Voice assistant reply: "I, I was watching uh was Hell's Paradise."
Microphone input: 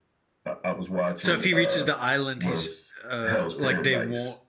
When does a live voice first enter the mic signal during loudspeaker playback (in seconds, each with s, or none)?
1.2 s